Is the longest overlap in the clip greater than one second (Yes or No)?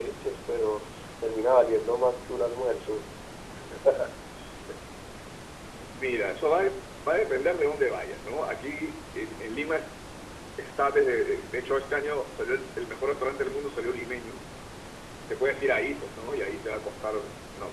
No